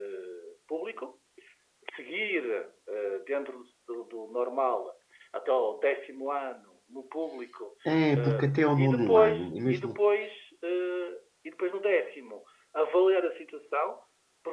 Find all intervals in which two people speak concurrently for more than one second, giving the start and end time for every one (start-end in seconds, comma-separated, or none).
8.1-10.0